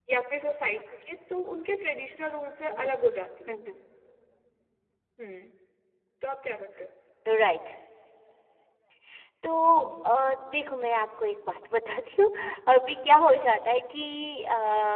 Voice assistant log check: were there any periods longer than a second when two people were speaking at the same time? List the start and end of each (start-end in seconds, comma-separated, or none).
none